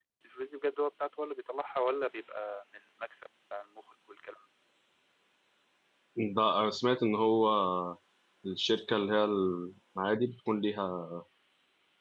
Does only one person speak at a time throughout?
Yes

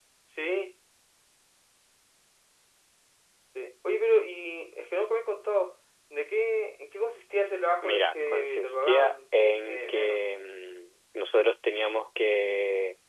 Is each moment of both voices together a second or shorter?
No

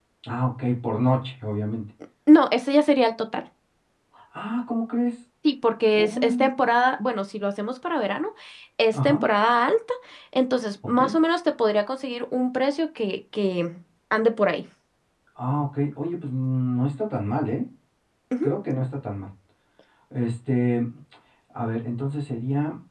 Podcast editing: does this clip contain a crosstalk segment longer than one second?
No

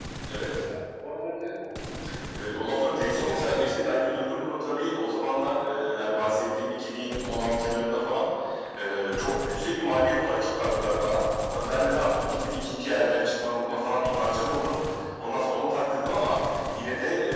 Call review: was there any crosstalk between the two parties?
Yes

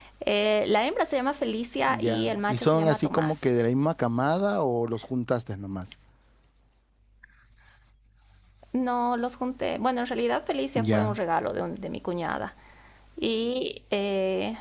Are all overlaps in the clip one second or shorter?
No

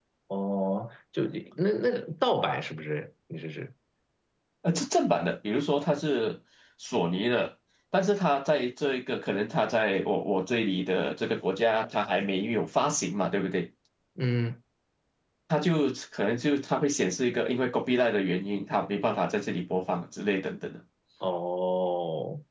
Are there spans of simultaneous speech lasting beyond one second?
No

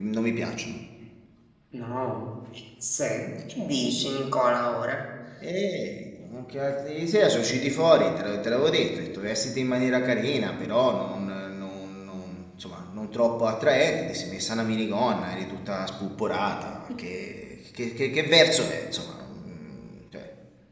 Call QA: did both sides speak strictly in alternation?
Yes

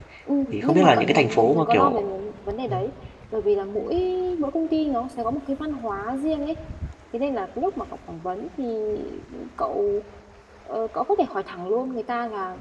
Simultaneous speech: Yes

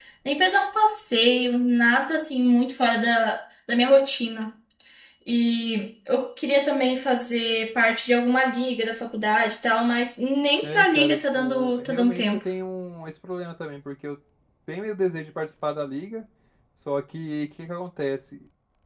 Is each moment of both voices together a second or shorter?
No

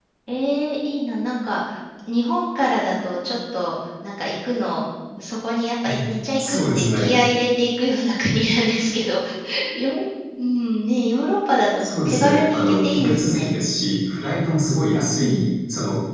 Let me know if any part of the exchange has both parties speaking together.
Yes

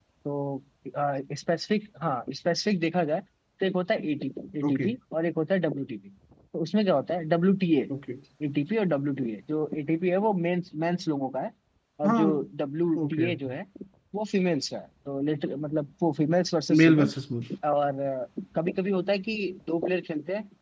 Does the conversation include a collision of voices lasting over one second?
No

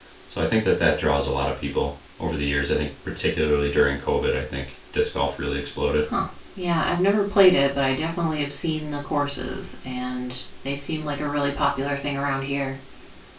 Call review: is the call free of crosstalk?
Yes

